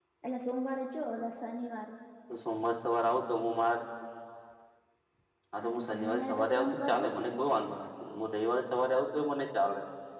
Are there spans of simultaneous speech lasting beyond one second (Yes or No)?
Yes